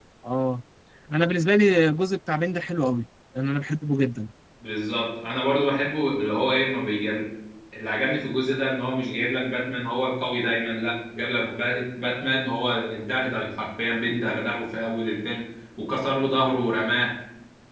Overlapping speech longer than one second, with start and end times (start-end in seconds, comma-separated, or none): none